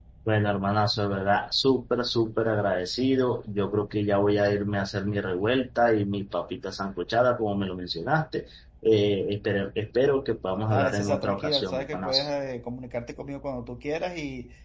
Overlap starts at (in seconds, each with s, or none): 10.7 s